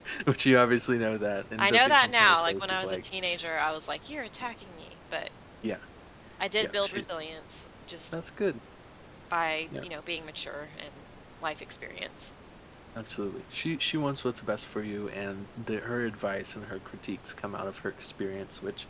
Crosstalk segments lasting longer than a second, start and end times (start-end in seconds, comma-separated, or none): 1.6-3.0